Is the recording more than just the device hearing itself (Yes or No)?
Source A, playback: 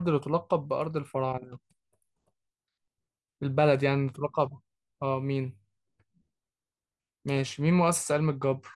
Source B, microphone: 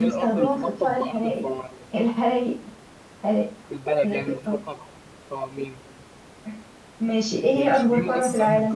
Yes